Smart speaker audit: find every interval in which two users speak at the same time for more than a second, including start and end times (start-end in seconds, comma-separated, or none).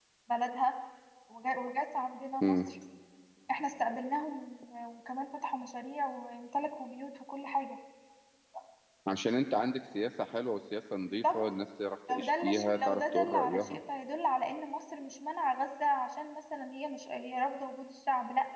12.1-13.8